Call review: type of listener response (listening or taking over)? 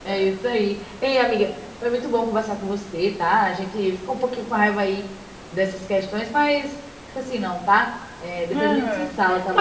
taking over